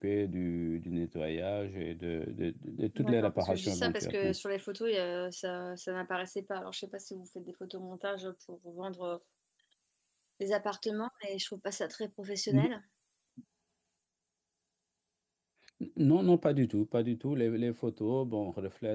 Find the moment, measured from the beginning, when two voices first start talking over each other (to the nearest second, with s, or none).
3 s